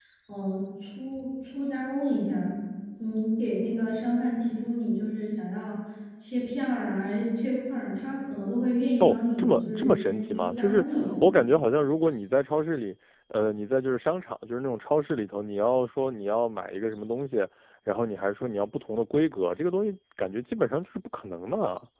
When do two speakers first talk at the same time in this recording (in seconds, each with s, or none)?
9.0 s